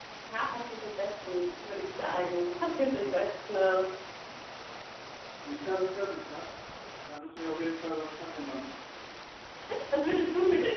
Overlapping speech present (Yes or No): No